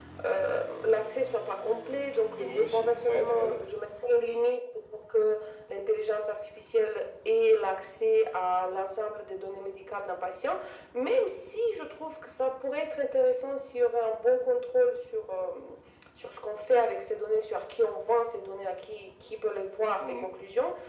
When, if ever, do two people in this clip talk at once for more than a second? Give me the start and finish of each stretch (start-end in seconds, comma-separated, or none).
2.4-3.6